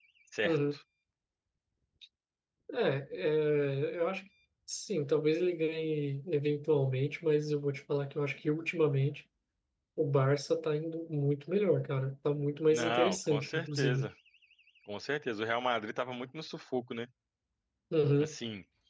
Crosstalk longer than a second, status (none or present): present